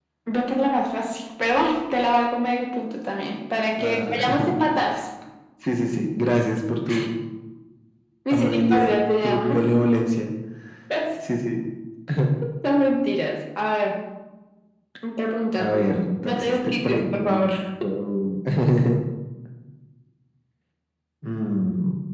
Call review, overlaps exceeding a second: present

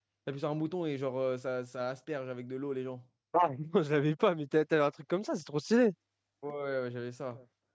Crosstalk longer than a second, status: none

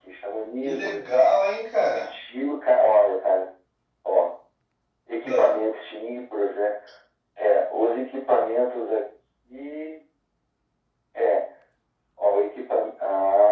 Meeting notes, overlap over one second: none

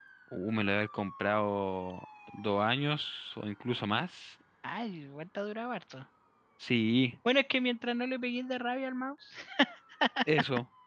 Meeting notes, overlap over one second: none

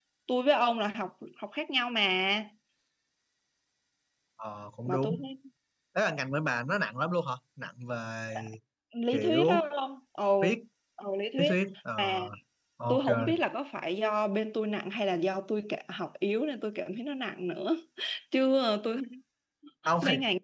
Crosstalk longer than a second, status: none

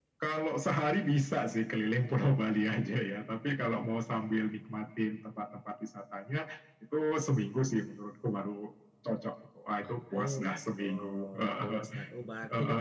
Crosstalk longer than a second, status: present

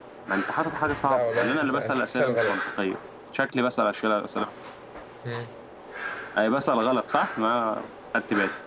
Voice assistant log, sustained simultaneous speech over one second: present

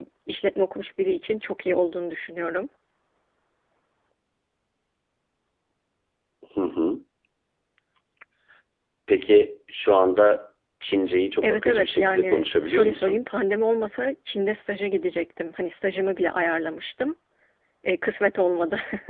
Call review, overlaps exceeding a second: present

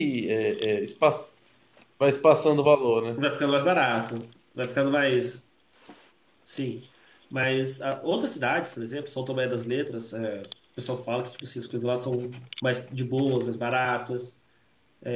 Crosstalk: none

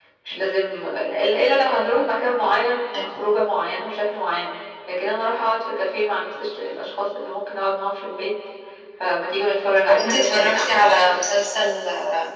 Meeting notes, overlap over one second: present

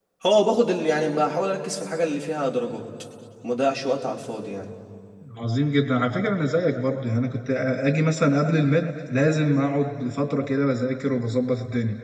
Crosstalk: none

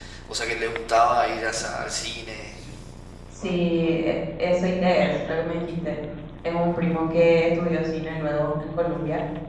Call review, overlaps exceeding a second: none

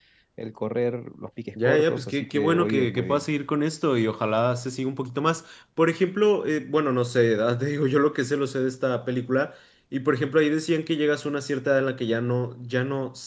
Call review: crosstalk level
present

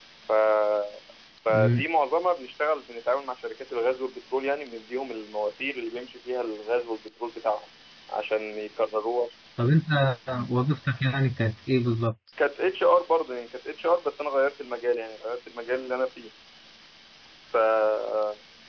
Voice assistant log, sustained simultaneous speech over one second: none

